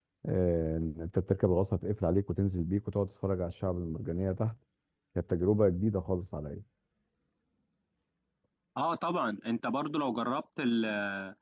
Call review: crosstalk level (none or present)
none